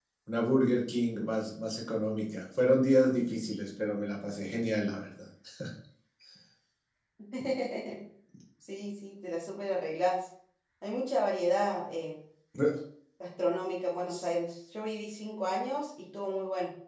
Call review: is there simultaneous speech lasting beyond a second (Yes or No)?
No